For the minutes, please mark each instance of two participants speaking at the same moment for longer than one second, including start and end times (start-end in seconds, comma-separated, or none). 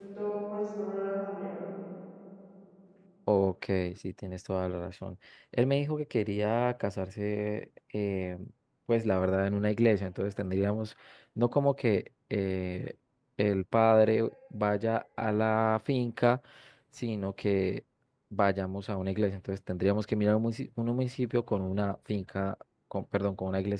none